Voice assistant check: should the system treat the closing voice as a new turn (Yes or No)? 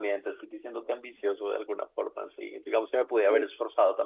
No